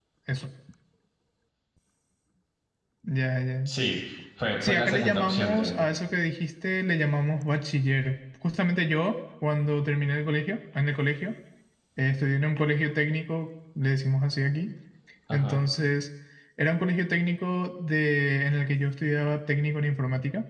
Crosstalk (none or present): present